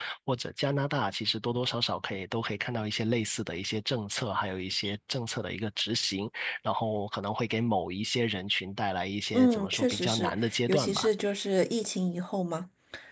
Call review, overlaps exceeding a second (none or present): present